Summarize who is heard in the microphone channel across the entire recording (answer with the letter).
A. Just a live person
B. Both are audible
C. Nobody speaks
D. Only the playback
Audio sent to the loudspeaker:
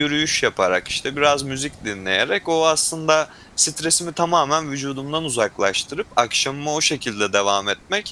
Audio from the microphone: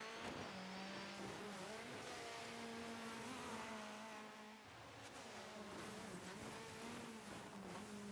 C